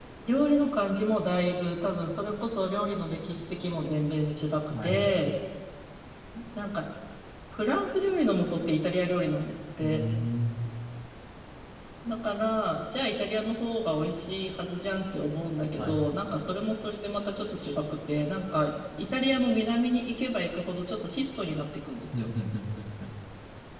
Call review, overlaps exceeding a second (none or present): none